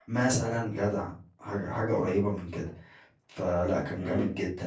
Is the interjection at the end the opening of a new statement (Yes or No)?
No